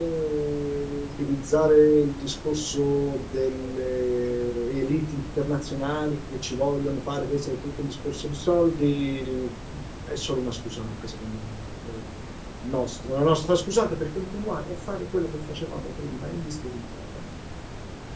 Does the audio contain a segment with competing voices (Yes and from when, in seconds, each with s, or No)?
No